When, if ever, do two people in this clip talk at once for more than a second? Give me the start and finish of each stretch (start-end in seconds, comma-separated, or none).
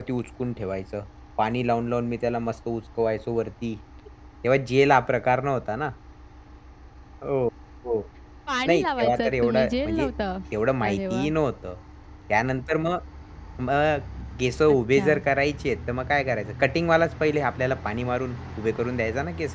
8.7-10.1